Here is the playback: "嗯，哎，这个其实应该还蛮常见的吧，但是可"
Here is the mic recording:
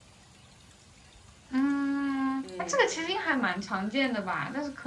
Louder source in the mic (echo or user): echo